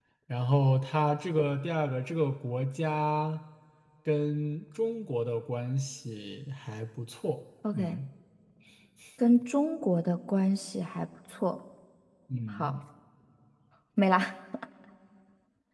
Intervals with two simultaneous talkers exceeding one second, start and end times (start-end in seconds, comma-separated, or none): none